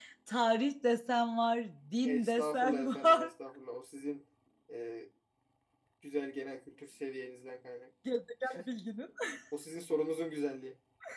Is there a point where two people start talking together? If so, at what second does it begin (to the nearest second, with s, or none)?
2 s